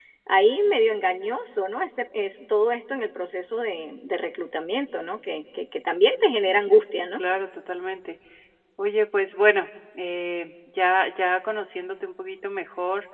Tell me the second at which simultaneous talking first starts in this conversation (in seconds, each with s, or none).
none